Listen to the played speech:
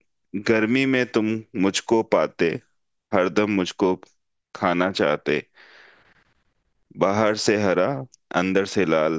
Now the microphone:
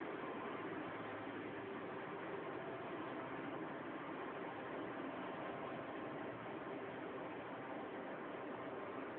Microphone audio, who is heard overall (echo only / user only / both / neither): neither